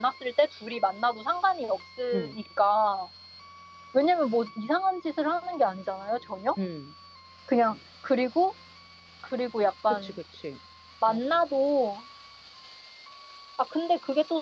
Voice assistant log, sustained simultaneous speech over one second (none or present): none